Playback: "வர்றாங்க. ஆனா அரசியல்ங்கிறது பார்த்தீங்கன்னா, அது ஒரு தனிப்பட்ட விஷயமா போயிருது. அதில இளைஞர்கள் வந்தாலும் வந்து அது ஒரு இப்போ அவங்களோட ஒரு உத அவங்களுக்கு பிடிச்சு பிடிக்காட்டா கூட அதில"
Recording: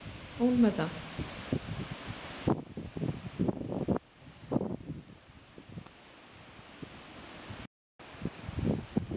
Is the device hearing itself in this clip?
No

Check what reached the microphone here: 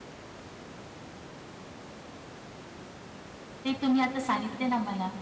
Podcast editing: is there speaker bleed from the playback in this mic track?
No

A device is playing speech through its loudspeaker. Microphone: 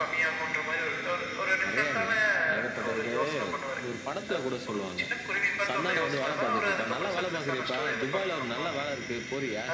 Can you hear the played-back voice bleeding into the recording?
Yes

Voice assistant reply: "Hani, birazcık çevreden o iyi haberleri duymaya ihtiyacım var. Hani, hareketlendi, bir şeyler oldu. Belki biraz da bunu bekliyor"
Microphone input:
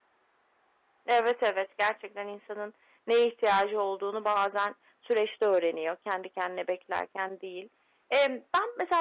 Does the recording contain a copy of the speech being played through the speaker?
No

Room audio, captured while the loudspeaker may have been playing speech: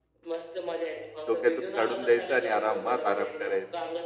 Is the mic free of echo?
No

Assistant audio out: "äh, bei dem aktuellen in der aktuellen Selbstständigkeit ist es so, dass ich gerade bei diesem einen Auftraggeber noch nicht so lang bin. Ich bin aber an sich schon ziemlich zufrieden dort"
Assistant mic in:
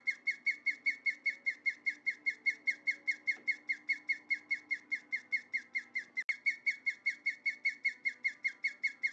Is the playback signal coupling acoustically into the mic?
No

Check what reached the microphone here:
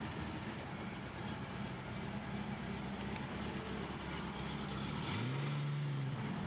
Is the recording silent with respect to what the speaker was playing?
Yes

